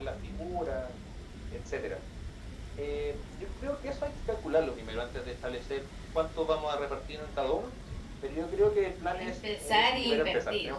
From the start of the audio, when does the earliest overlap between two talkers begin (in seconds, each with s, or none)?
9.1 s